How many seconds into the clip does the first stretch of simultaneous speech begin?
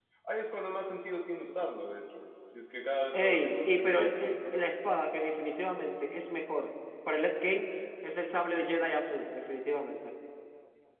3 s

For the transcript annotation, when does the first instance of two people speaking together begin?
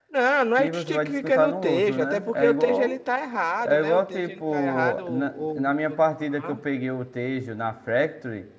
1 s

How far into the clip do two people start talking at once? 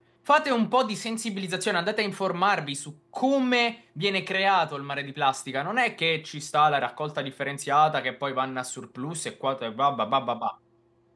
none

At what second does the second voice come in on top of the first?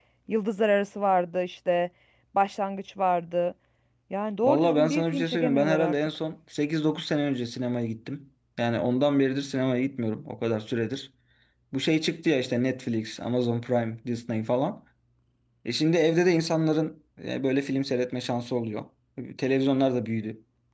4 s

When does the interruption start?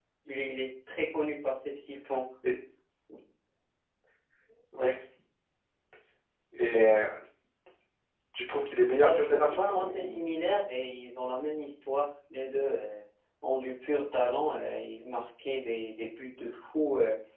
9 s

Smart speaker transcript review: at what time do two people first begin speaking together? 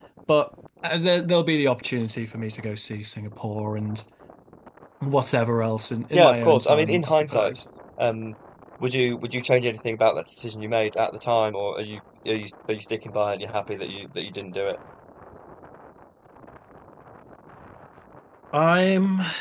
6 s

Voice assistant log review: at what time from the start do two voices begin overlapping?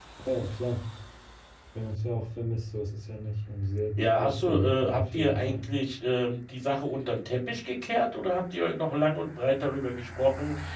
4 s

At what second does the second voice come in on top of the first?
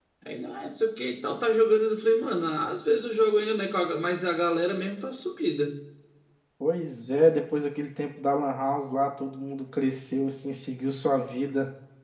none

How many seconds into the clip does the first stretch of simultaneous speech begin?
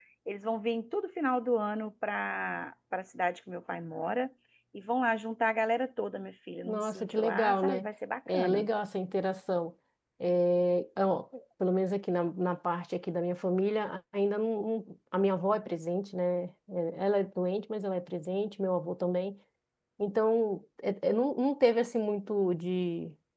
7 s

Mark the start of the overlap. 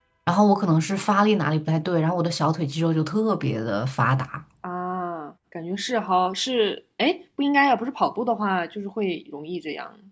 none

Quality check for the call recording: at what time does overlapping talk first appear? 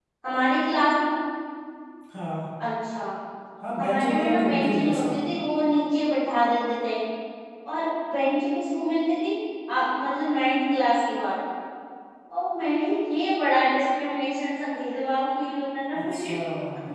4 s

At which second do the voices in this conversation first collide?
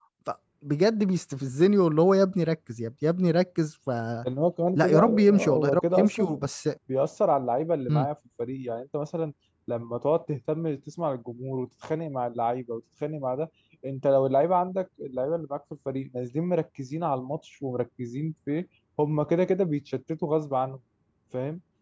5 s

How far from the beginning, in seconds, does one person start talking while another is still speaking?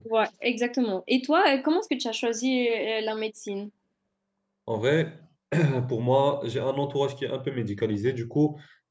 none

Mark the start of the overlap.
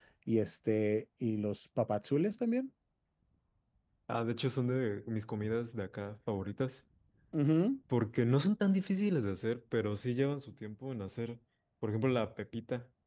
none

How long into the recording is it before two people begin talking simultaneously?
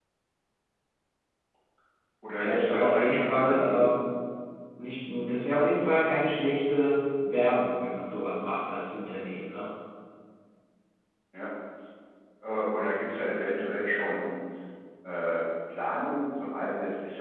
2 s

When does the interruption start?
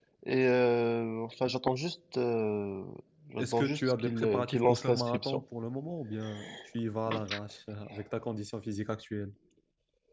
3 s

